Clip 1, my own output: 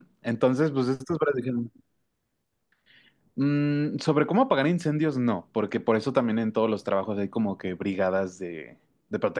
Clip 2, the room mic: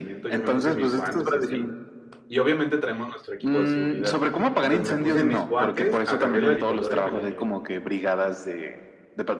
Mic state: both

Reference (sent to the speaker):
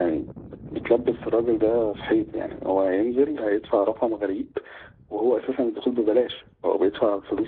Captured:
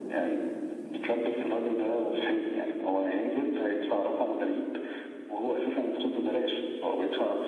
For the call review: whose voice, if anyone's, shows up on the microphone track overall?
echo only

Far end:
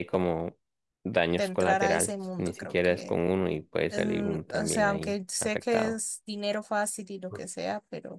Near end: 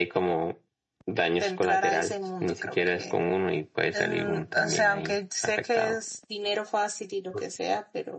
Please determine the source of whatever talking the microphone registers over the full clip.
echo only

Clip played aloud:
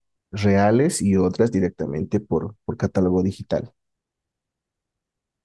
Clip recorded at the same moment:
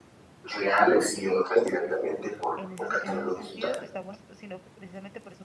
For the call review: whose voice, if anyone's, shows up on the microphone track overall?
both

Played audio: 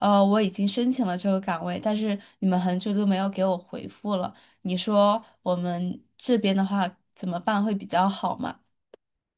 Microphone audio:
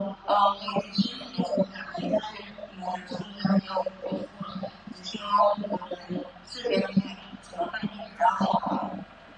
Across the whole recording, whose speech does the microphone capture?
echo only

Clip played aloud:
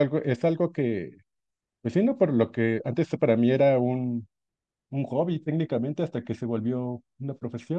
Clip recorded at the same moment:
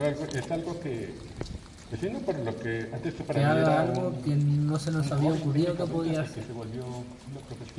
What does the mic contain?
both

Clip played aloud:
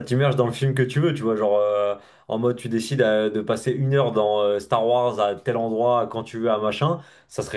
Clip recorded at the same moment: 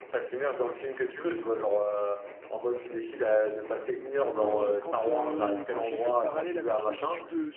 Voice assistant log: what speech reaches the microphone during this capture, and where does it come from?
both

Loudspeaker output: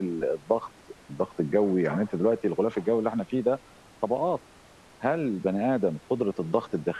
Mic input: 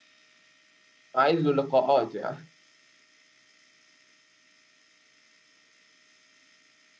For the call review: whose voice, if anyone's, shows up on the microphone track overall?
user only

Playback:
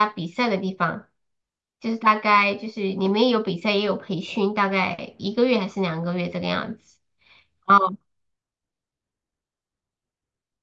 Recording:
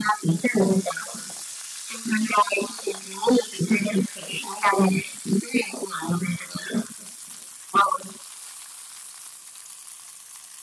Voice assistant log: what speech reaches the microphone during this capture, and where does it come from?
echo only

